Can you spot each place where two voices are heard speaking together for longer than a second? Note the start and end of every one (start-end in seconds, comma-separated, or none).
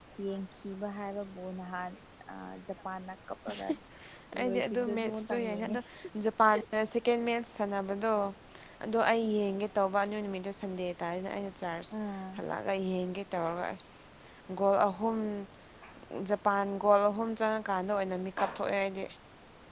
4.4-5.8